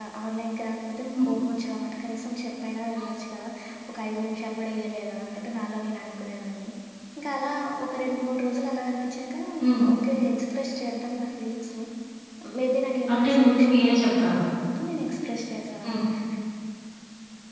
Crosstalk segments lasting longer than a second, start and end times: 13.1-14.4

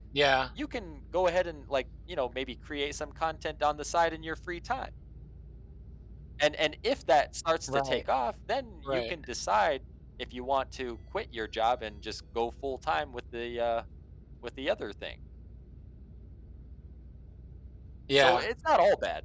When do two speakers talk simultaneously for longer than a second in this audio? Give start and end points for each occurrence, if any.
none

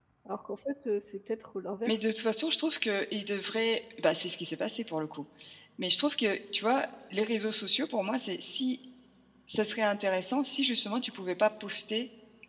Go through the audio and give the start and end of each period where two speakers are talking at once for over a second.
none

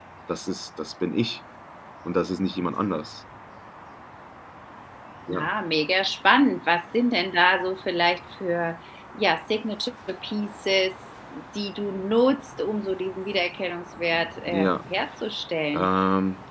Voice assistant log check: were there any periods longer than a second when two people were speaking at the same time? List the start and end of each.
none

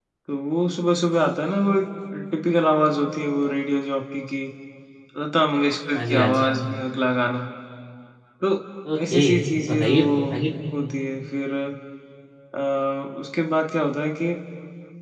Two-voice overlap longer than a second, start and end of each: 9.1-10.4

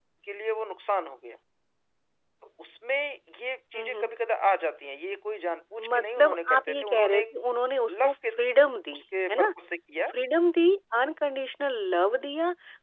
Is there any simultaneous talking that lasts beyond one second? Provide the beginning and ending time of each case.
5.9-7.2

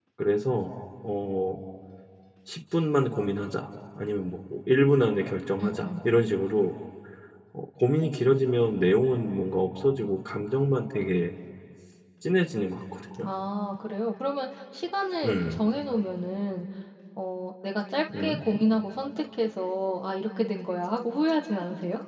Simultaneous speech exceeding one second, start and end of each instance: none

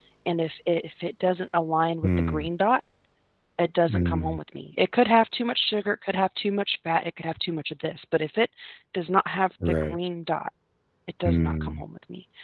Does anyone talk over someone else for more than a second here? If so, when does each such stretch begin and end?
none

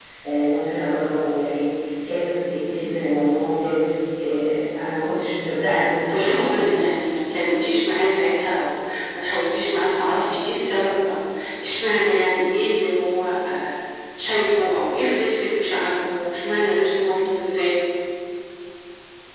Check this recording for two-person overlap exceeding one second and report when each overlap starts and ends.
none

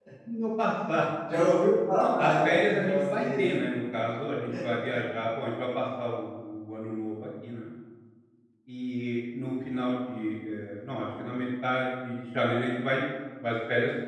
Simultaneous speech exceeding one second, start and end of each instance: 2.0-3.4

